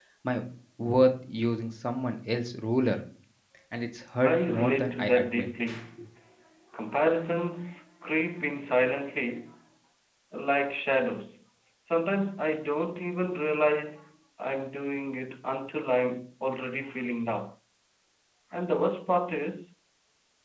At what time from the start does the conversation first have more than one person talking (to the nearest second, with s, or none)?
4 s